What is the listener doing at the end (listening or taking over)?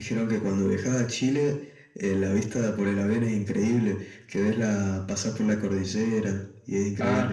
taking over